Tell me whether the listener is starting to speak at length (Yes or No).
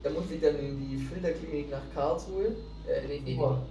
No